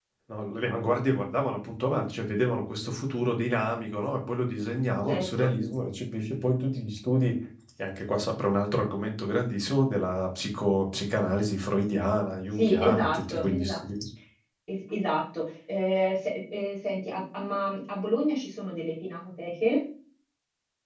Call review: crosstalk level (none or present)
present